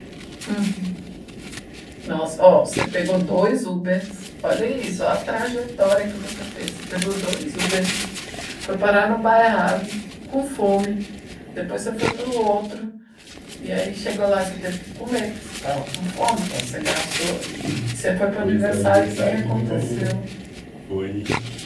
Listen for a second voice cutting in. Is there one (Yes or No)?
Yes